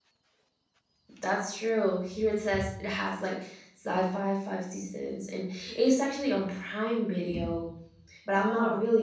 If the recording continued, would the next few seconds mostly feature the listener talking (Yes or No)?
No